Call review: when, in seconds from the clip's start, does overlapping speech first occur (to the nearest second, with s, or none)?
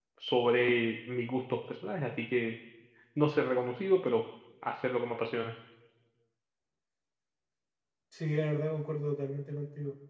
none